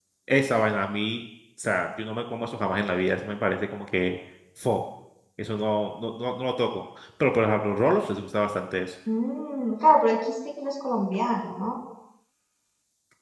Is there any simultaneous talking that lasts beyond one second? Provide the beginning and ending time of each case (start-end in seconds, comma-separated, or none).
none